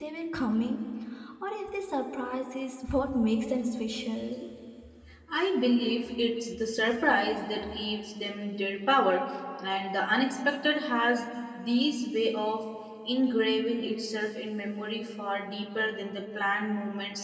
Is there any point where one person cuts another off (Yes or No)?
No